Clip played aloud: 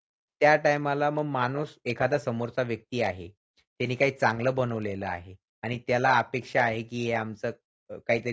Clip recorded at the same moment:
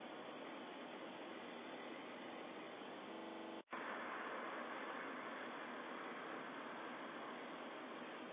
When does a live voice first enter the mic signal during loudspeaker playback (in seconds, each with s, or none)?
none